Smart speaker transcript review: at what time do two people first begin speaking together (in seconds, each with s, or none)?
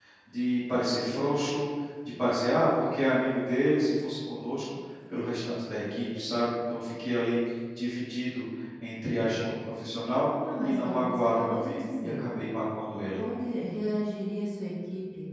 10.4 s